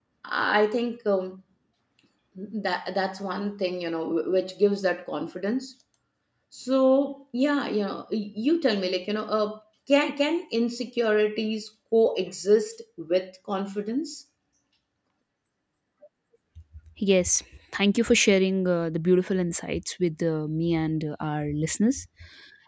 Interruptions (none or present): none